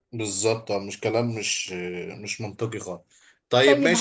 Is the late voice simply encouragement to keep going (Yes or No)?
No